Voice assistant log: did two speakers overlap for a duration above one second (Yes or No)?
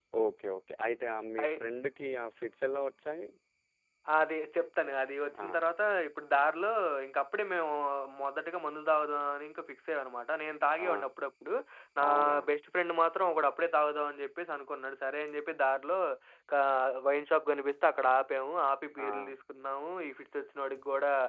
No